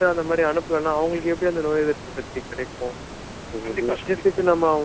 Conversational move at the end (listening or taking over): listening